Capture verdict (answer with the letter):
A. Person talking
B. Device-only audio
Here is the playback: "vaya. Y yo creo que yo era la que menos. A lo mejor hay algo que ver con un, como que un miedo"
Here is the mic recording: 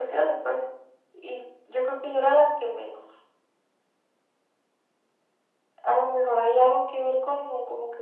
B